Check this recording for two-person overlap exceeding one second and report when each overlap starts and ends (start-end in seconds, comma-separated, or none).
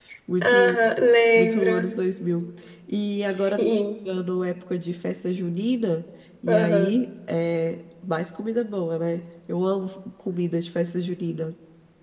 none